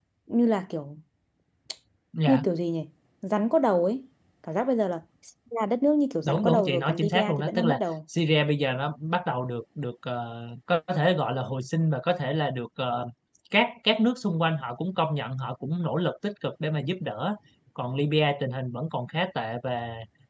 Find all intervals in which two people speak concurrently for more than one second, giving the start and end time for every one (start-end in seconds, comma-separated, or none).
6.2-7.8